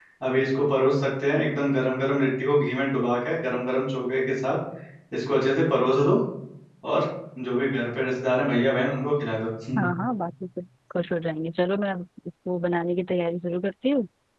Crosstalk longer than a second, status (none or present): none